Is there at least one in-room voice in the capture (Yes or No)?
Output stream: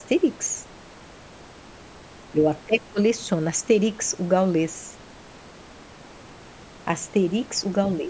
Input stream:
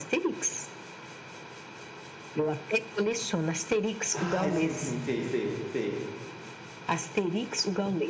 Yes